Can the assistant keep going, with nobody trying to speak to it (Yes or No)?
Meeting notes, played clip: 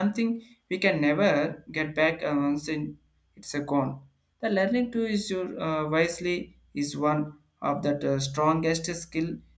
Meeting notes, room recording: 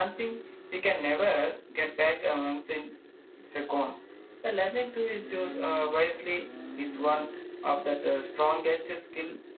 Yes